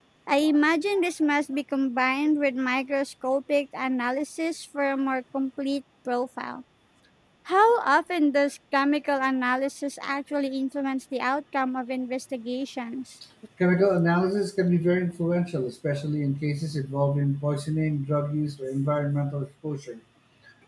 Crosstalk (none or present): none